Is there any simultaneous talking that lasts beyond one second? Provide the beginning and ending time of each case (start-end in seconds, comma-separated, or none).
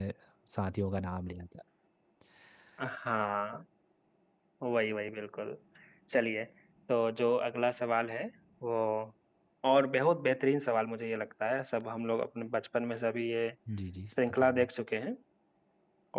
none